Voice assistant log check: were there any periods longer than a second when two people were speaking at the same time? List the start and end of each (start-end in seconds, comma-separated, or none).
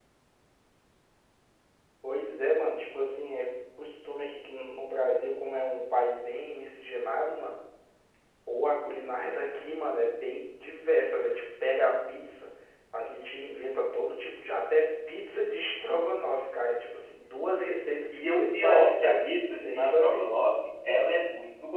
18.2-20.2